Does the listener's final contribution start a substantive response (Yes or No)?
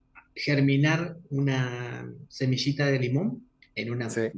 No